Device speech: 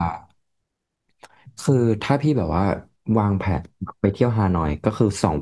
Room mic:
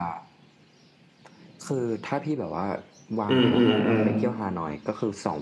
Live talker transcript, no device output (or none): อืมอืมอืม